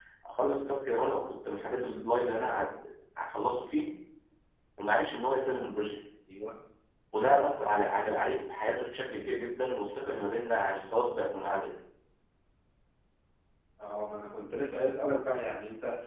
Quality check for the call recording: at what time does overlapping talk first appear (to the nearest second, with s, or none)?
none